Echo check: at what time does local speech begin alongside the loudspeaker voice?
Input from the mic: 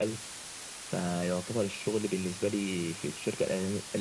none

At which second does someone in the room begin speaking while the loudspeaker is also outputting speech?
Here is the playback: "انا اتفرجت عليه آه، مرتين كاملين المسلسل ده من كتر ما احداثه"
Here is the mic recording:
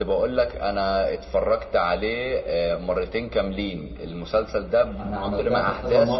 5.0 s

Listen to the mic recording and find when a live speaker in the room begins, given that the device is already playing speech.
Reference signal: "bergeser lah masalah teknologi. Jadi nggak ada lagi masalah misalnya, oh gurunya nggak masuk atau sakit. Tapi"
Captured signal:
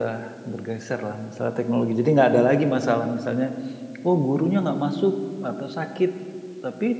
none

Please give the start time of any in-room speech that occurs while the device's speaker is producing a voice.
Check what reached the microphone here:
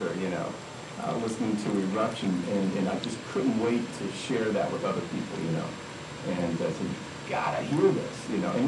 none

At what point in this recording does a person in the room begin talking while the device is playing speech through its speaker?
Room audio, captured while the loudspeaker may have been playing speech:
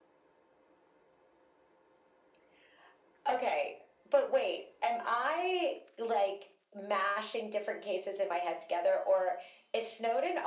none

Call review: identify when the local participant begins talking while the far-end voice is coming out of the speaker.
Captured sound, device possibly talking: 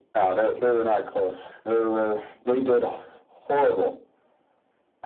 none

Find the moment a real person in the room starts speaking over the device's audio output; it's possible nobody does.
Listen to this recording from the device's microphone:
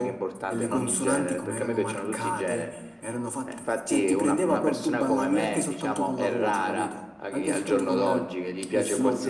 none

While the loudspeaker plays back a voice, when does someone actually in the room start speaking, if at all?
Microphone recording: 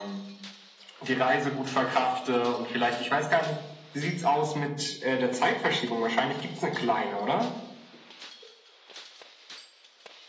none

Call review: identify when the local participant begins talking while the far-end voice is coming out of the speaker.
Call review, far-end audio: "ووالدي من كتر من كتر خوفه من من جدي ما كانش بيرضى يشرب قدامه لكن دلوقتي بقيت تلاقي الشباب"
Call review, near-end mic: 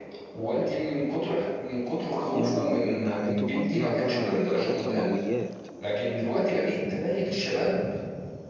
2.3 s

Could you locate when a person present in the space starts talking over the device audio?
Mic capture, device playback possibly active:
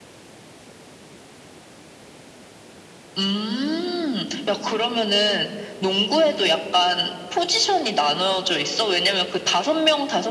none

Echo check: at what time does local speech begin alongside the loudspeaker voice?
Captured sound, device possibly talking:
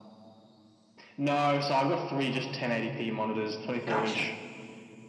3.8 s

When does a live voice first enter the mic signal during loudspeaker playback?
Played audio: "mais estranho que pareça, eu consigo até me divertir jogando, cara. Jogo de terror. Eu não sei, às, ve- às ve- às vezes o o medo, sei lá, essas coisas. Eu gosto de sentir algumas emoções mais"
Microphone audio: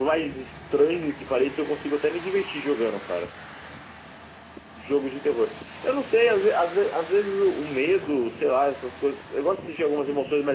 none

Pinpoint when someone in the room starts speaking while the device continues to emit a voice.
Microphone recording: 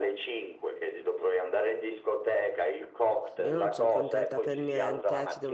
3.4 s

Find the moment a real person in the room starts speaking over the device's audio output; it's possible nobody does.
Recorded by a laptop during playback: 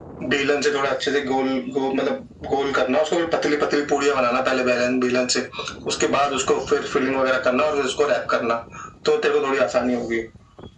none

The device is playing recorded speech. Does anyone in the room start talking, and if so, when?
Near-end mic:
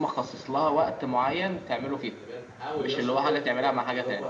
0.5 s

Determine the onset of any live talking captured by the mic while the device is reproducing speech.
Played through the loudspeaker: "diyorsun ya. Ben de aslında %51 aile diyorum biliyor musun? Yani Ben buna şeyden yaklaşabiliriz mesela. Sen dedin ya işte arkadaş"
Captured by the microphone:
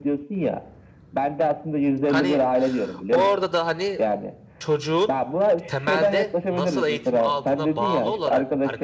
2.1 s

